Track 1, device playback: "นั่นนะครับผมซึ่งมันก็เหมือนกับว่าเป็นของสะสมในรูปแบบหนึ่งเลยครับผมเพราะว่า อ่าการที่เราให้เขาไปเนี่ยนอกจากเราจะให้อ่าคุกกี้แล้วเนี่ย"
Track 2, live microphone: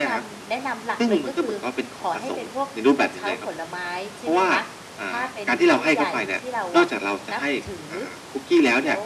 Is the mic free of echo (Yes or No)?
No